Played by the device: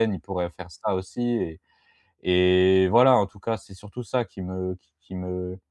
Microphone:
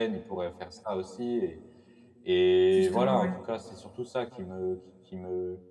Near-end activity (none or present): present